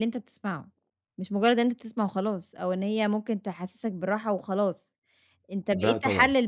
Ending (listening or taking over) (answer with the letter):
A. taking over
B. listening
B